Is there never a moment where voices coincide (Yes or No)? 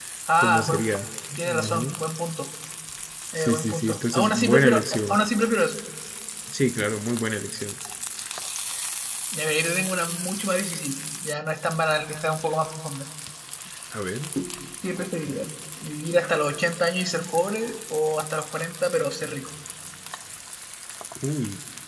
No